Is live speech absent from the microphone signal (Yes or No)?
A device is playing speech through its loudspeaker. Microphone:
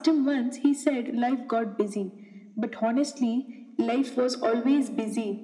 Yes